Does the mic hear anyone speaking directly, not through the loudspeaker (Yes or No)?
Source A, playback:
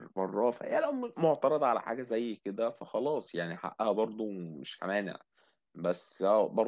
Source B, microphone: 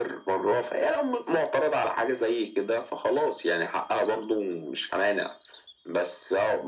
No